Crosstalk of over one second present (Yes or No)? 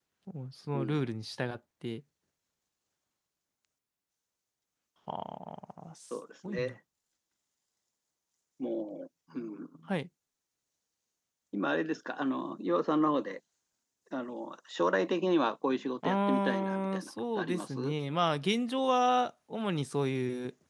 Yes